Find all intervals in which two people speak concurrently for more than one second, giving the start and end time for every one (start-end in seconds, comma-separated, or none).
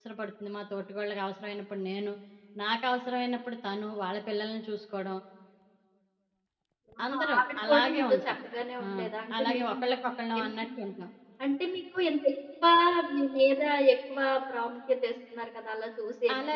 7.1-8.3